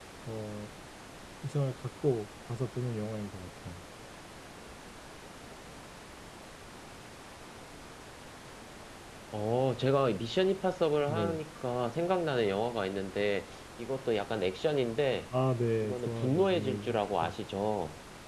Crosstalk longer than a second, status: present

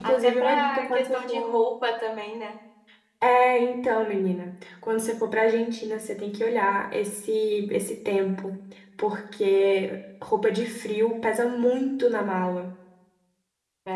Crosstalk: present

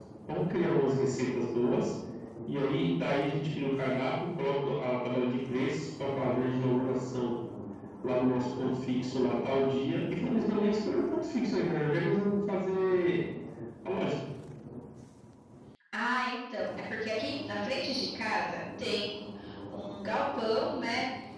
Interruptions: none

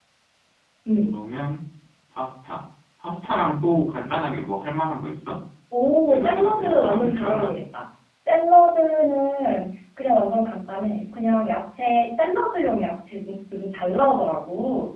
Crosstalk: present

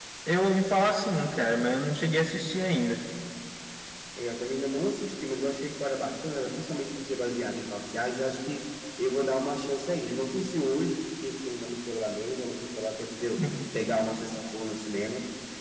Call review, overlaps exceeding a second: none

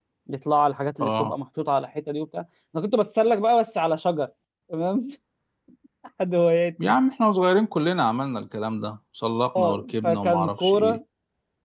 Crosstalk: present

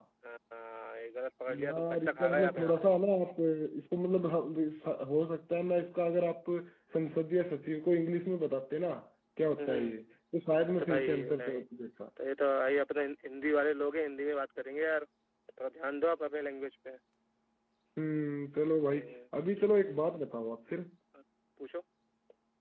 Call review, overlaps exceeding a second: present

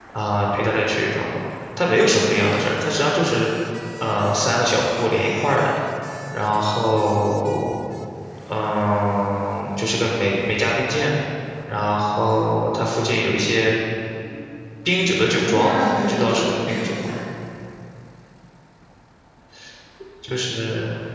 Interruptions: present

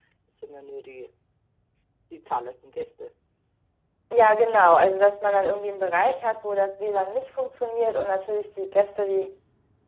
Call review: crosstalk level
none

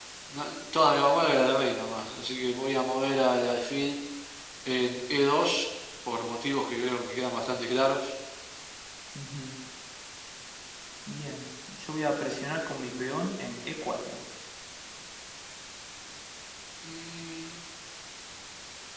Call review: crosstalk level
none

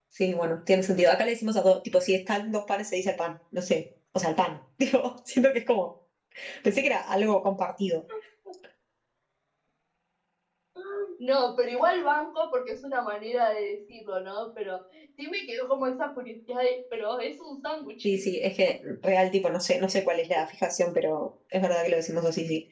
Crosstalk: none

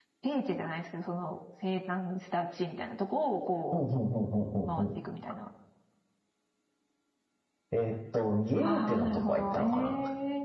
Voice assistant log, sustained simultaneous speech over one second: present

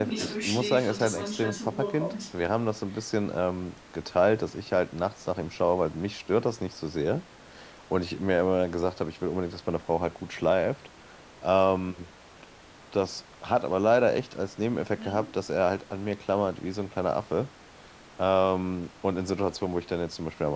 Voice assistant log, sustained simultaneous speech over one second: present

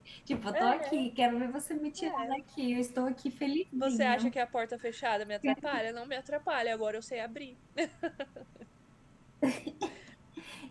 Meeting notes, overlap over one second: none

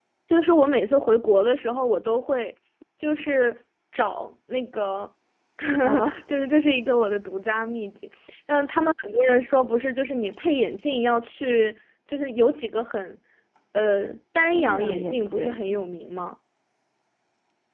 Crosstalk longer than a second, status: present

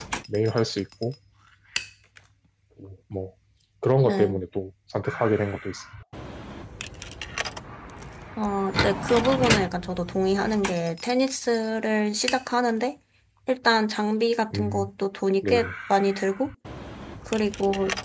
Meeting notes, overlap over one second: none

